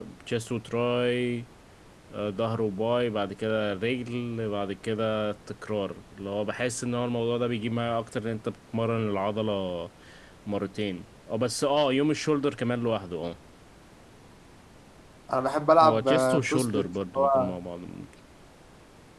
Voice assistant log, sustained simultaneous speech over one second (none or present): present